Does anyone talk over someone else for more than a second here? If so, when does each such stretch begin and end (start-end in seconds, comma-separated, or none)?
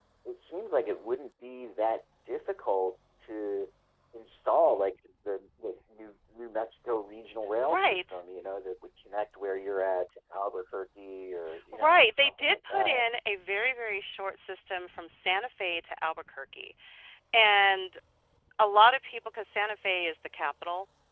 11.7-13.0